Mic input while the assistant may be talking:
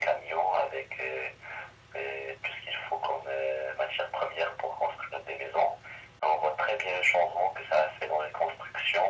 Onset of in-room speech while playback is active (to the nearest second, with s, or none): none